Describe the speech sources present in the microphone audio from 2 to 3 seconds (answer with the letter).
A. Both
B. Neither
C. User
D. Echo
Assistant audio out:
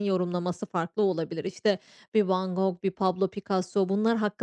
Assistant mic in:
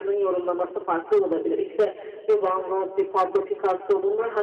D